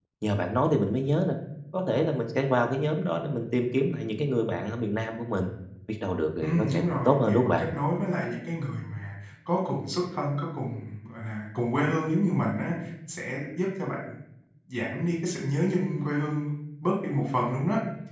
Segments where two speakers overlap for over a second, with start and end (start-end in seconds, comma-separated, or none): 6.4-7.6